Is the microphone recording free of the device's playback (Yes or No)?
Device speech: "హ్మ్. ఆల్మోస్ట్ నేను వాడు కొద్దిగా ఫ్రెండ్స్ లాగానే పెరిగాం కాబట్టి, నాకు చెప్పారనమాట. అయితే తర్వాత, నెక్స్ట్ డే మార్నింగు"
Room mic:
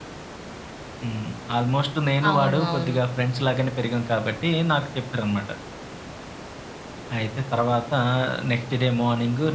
No